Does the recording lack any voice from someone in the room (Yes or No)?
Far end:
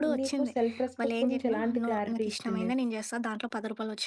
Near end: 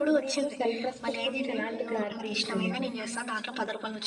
No